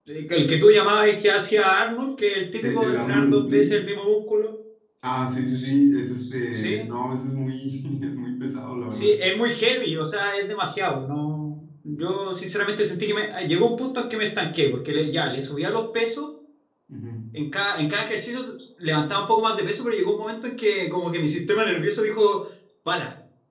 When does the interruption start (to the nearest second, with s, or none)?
3 s